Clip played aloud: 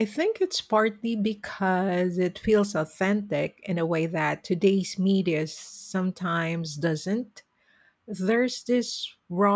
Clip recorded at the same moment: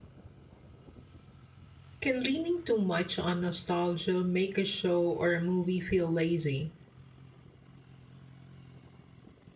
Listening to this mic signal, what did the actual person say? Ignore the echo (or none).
Can leaning too much on nostalgia make a show or a movie feel lazy?